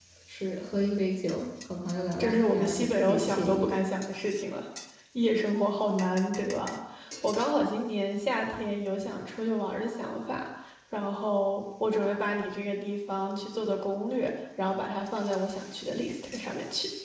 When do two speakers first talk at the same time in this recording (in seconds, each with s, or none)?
2.2 s